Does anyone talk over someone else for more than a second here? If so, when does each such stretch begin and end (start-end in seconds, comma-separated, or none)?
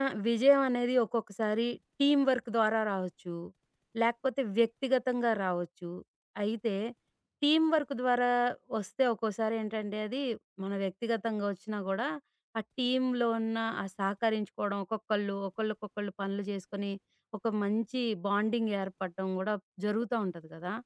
none